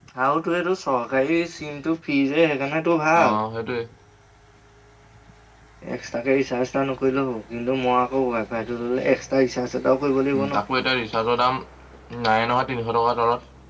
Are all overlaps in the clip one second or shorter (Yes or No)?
Yes